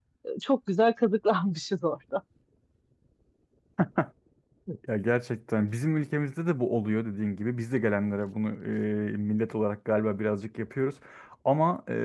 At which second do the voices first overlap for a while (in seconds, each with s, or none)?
none